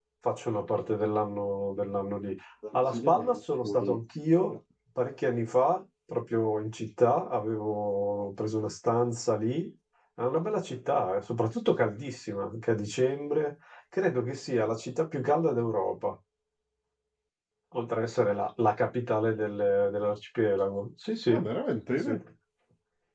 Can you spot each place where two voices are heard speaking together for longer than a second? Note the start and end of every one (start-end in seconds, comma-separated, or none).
2.7-4.0